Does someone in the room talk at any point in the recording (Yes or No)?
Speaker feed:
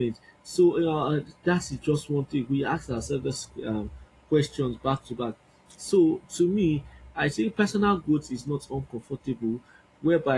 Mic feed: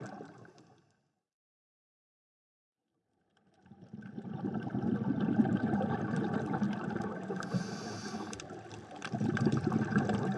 No